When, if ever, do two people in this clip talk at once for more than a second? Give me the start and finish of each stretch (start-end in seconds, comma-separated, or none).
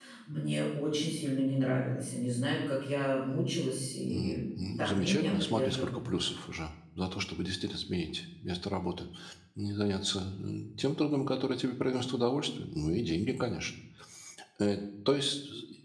4.1-6.0